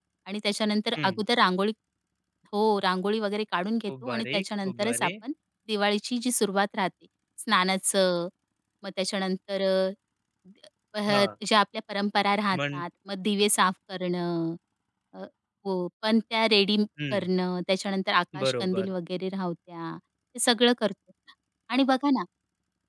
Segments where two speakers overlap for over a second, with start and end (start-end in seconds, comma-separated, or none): 3.9-5.1